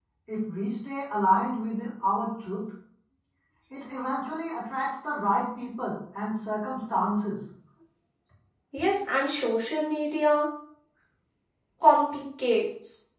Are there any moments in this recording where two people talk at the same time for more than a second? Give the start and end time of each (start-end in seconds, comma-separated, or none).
none